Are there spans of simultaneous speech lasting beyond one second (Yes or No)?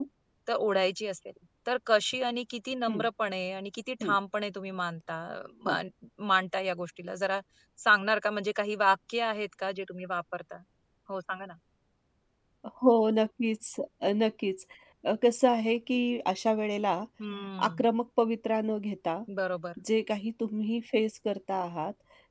No